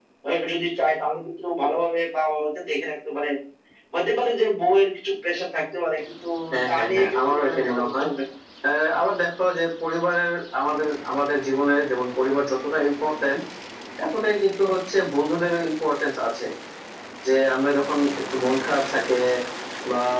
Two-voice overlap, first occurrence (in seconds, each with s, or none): 6.6 s